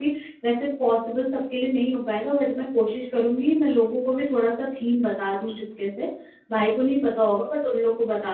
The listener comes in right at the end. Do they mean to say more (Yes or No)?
No